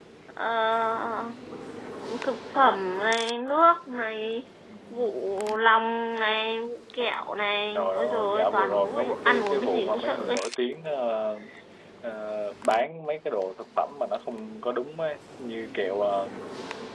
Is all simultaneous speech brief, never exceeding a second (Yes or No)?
No